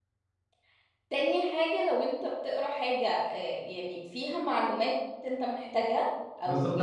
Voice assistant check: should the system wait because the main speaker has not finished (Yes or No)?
No